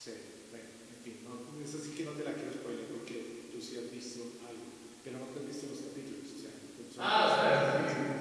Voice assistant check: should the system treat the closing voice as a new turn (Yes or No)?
Yes